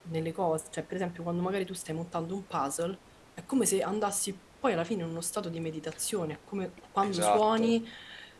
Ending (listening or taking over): listening